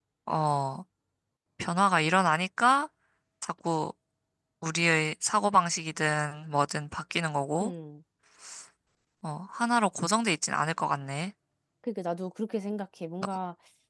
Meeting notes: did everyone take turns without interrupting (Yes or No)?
Yes